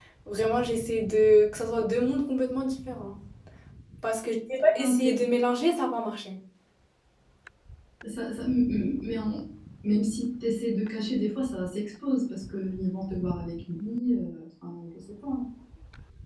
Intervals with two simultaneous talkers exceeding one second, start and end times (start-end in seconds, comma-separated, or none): none